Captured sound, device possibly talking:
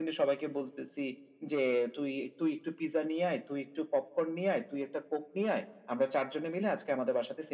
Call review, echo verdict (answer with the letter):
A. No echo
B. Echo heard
B